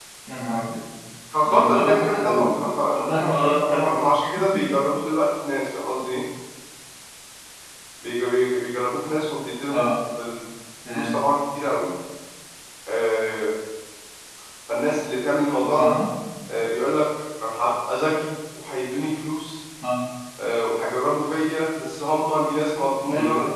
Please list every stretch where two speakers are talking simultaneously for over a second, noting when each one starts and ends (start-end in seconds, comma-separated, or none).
1.5-4.0